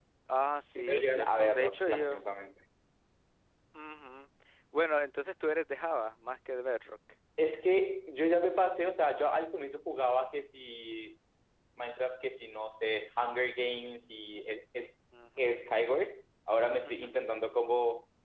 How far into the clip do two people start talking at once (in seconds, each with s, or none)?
0.8 s